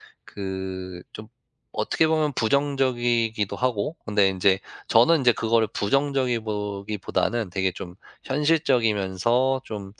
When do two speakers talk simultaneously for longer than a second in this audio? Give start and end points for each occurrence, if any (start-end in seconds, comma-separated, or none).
none